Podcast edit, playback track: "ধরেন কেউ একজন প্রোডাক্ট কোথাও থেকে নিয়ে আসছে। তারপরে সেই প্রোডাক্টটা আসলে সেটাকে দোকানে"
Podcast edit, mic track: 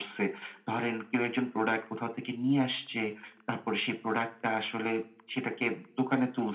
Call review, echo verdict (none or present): present